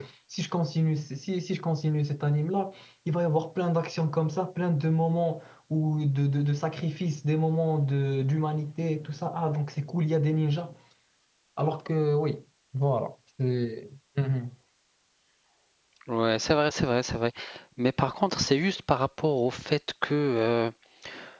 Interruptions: none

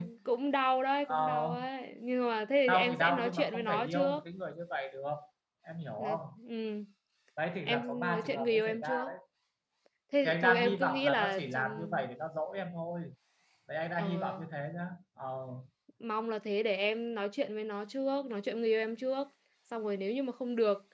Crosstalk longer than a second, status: present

